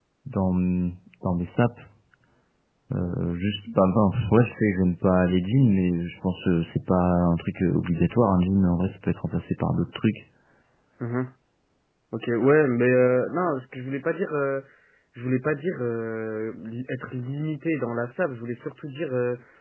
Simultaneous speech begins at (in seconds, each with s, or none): none